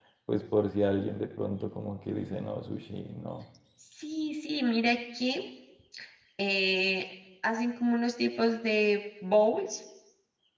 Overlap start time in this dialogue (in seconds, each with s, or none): none